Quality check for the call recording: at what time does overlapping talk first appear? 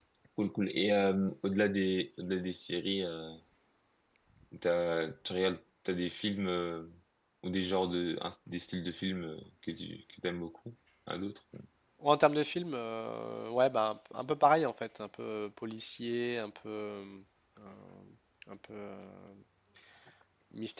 none

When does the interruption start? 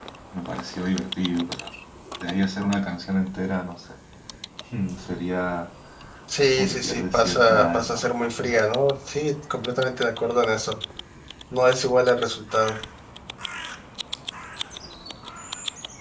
7 s

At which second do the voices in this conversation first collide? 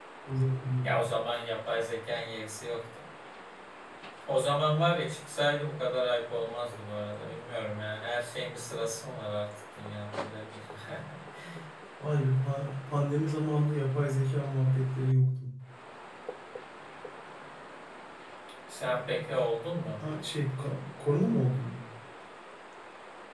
none

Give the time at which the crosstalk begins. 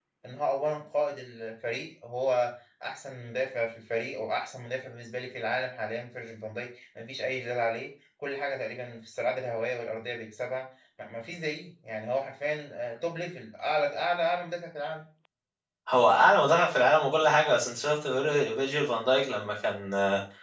none

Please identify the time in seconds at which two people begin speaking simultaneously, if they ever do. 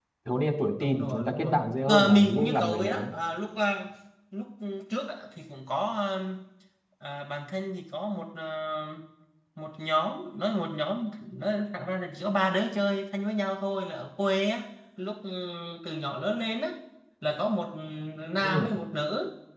1 s

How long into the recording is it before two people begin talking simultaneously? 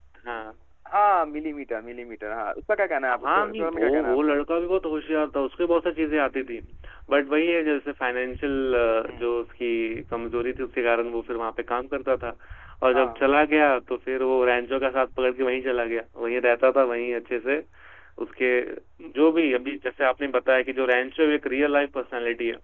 3 s

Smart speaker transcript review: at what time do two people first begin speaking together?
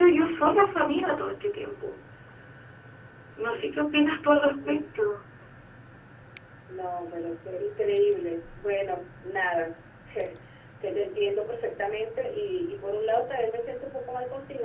none

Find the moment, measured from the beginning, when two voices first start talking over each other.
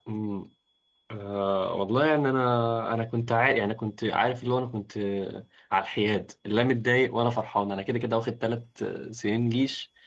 none

